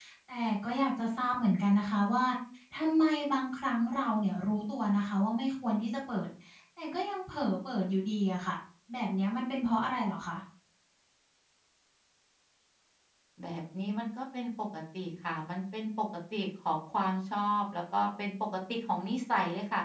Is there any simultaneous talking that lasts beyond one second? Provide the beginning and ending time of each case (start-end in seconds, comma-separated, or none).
none